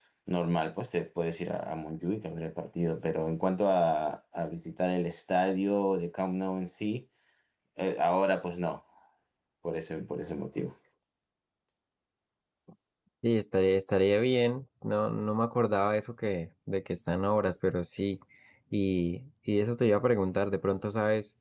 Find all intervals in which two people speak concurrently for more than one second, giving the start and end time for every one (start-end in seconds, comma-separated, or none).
none